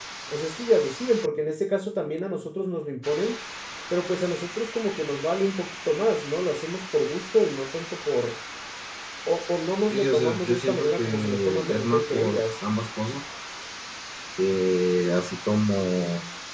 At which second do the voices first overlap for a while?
10 s

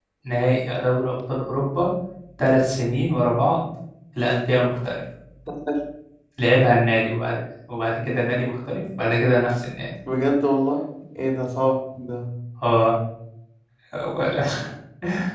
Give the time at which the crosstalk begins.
none

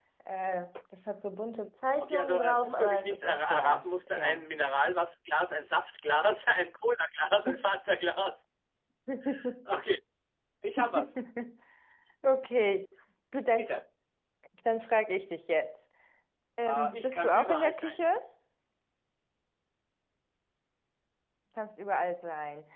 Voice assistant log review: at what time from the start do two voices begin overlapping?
2 s

